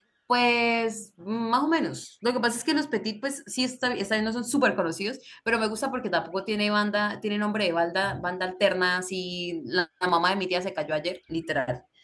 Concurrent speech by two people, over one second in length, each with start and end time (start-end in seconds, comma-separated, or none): none